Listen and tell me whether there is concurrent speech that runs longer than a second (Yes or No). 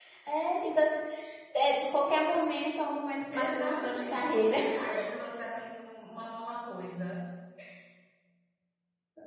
Yes